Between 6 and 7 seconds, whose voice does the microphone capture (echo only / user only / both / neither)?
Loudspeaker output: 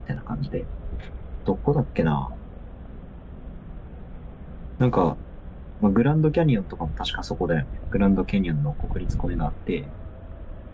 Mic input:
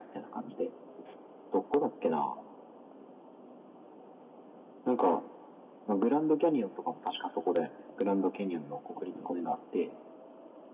echo only